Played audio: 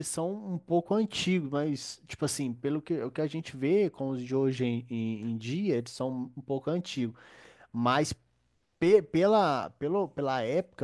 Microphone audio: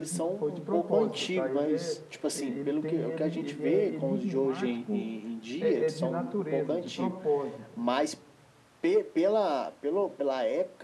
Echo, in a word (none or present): present